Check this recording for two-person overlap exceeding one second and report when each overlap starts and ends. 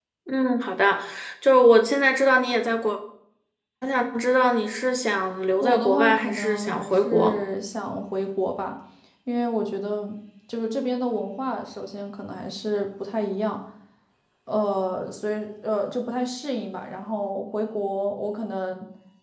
5.6-7.4

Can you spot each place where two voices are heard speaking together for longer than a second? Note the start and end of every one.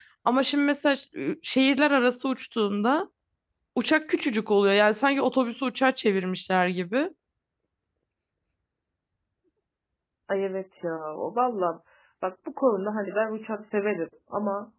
none

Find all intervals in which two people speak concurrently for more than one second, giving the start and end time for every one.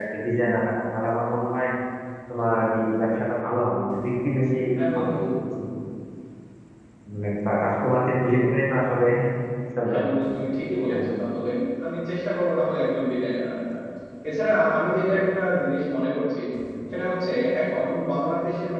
none

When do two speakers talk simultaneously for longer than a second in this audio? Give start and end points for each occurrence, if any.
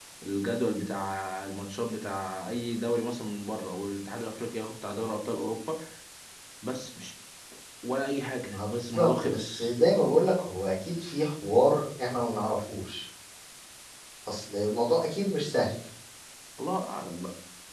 8.4-9.7

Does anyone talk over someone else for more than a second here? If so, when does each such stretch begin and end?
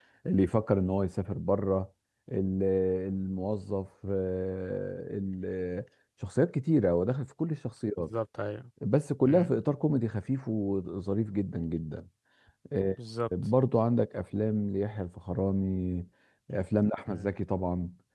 none

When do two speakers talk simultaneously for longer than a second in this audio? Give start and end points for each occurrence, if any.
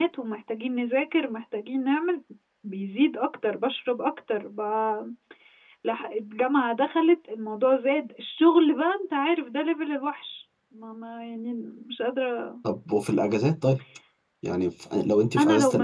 none

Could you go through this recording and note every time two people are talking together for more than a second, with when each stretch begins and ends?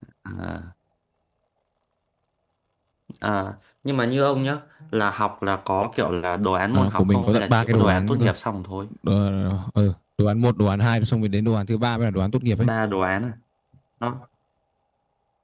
6.7-8.3

